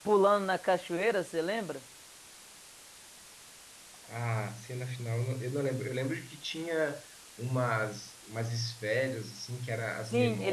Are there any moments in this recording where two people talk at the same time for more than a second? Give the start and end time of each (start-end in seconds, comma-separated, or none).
none